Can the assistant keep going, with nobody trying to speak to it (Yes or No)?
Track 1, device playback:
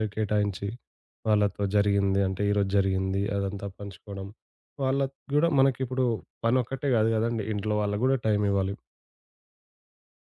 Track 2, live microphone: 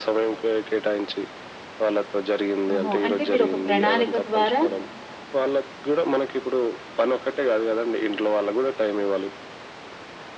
No